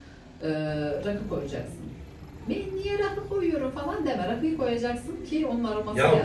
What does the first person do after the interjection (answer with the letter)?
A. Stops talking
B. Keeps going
A